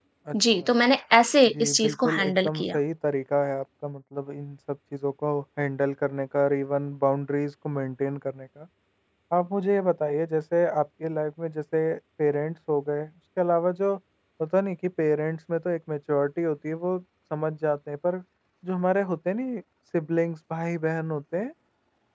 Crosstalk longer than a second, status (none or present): present